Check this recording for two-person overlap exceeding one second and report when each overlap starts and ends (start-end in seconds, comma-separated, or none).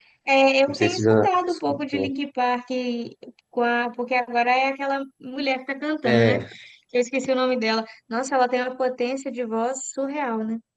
0.7-2.1